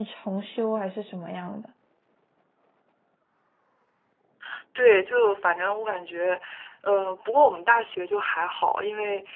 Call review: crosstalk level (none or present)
none